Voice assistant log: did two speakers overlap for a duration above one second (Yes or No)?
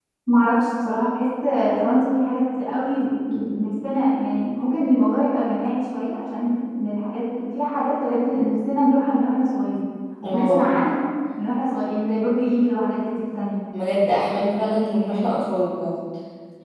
No